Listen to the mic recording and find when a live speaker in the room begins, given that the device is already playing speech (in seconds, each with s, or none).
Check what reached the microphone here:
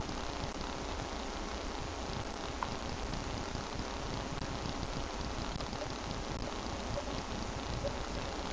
none